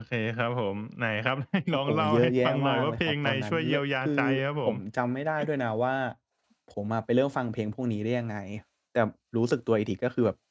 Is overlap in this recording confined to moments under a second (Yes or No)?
No